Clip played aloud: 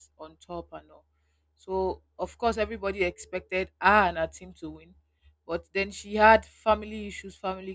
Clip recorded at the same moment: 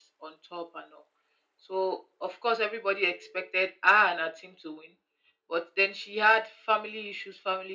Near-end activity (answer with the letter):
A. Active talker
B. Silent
B